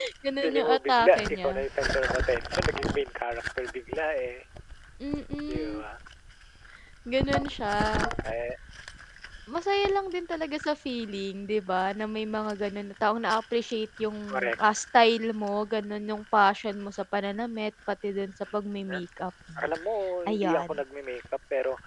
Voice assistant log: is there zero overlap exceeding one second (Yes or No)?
No